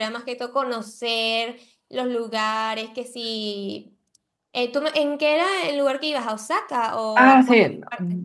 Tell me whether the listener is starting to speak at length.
Yes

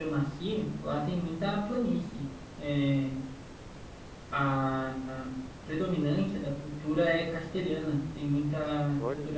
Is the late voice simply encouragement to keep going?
Yes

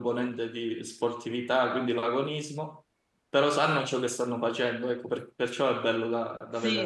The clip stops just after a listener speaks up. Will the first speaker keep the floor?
No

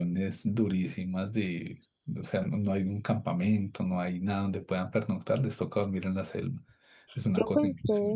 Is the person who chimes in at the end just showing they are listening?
No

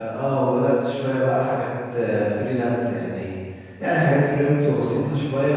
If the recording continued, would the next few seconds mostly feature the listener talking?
No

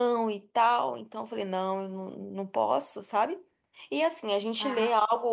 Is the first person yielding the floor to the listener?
No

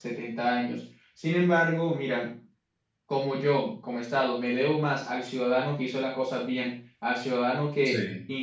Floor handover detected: No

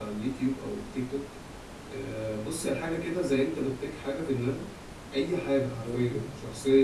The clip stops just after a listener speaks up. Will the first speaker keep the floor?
Yes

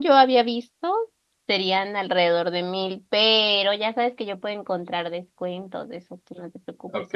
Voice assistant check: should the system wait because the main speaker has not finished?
No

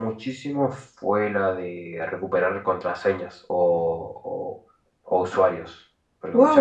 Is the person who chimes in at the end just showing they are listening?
No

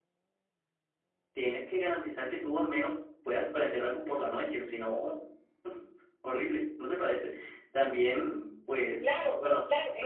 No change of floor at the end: No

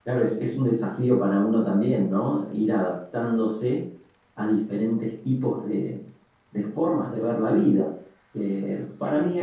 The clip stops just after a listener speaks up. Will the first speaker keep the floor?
Yes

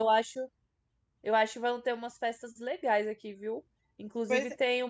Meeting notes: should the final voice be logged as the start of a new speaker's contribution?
No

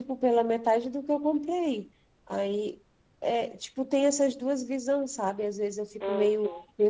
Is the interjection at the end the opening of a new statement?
No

